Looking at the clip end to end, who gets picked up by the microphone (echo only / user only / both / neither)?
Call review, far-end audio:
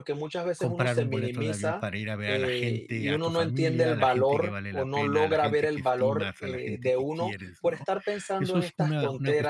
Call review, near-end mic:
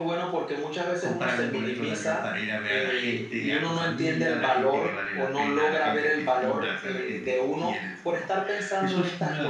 echo only